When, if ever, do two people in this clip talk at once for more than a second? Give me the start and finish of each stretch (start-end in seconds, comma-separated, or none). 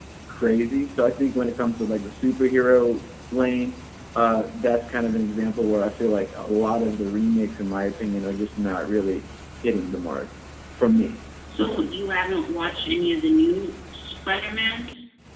none